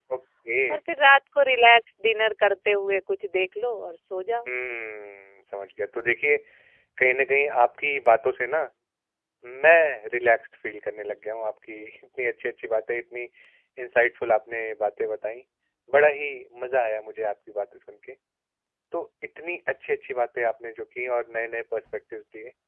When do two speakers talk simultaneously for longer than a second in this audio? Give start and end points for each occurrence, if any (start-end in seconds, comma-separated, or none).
none